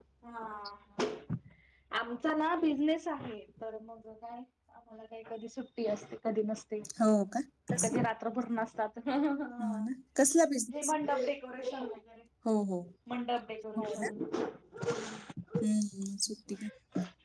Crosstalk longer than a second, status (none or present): none